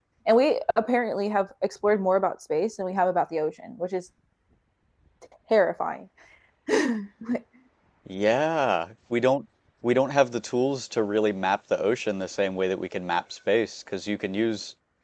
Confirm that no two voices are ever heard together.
Yes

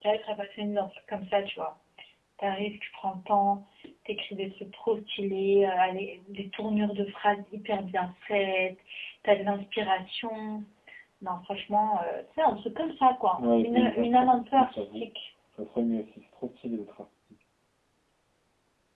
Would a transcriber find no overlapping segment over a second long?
No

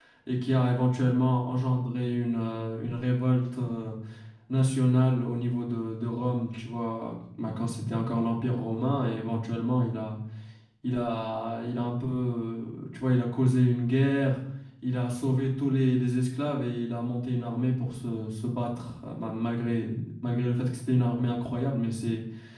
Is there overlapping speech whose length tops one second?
No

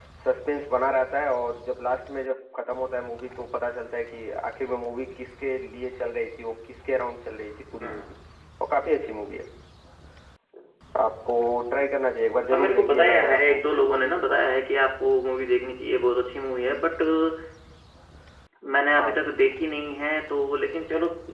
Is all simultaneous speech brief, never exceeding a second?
No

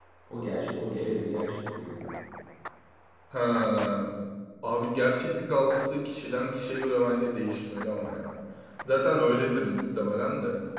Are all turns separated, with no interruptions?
Yes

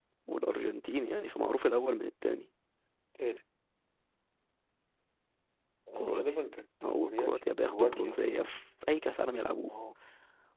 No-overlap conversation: No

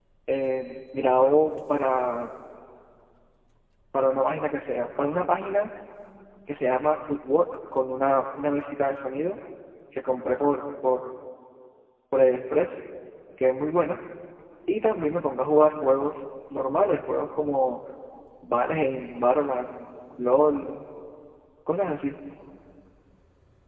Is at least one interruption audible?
No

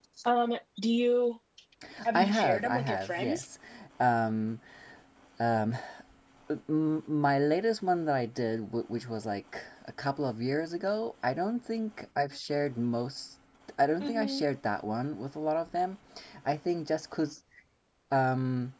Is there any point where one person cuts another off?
Yes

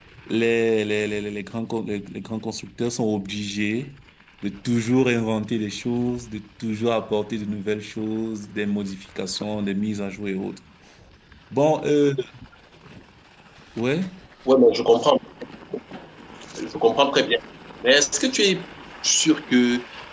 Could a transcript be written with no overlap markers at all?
Yes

